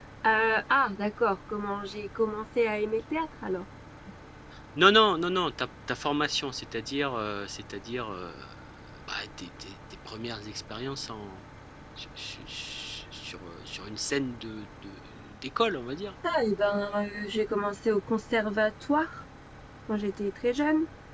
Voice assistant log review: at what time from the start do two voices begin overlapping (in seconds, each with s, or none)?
none